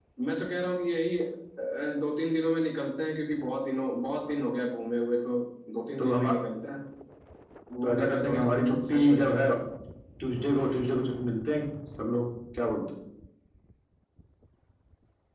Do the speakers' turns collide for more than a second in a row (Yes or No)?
Yes